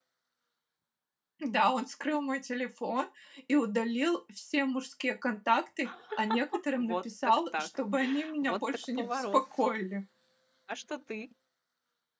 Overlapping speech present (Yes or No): Yes